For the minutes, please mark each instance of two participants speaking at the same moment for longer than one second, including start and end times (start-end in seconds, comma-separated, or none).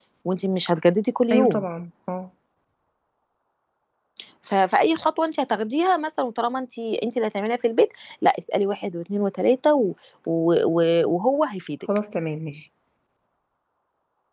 none